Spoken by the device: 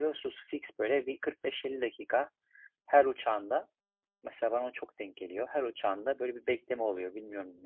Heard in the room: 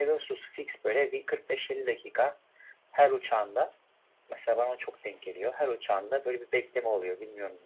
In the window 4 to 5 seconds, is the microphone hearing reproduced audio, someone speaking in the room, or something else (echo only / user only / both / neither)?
echo only